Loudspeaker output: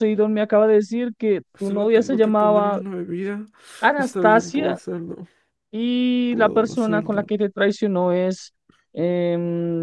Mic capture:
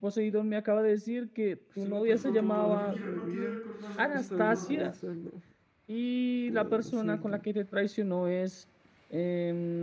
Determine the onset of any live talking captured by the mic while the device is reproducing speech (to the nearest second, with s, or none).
2 s